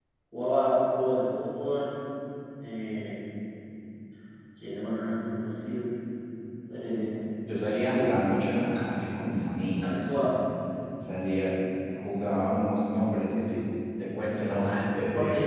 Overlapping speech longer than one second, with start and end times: none

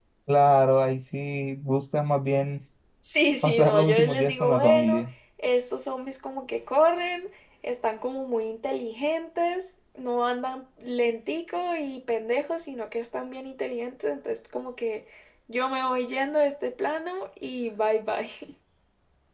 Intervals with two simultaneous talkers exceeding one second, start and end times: 3.4-5.0

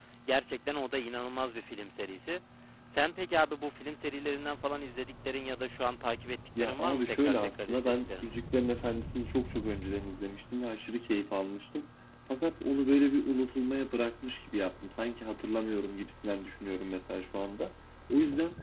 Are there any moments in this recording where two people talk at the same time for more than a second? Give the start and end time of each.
6.6-8.2

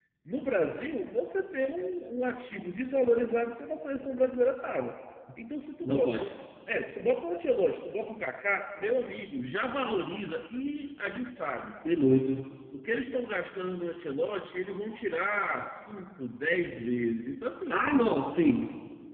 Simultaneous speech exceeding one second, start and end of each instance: none

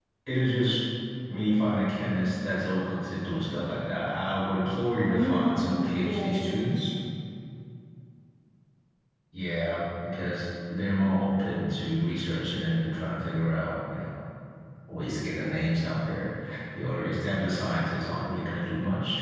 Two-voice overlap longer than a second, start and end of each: 5.1-6.6

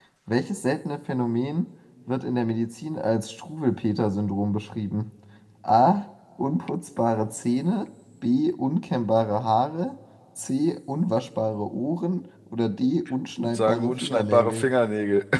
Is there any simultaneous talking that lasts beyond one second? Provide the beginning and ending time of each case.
13.4-14.7

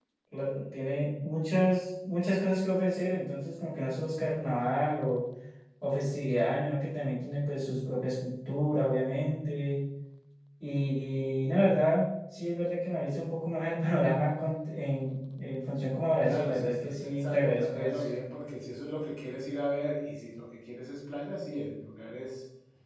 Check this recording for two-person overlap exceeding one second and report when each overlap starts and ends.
16.2-18.0

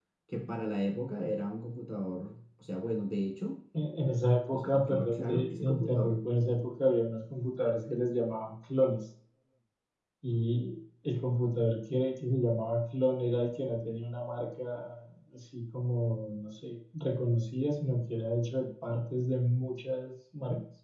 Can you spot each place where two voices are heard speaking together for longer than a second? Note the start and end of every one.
4.5-6.2

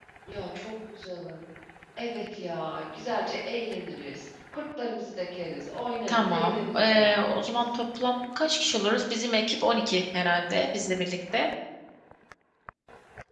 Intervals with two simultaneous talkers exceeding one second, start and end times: 6.1-7.4

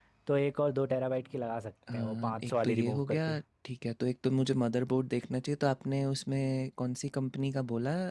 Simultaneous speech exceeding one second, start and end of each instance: 1.9-3.2

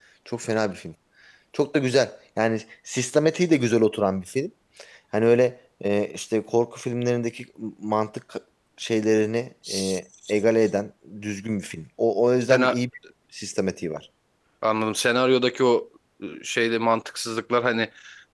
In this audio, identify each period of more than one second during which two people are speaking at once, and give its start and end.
none

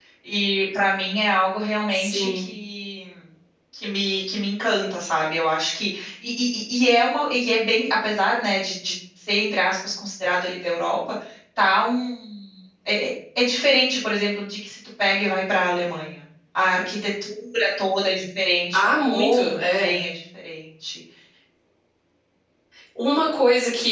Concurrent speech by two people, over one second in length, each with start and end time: 18.7-20.0

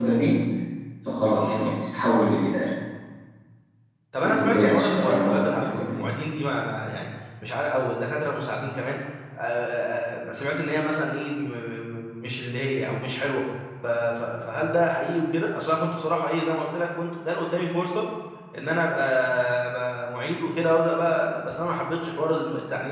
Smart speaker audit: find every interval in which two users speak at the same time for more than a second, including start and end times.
4.2-6.0

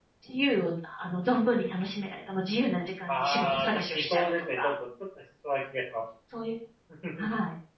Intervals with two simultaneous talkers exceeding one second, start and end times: 3.1-4.7

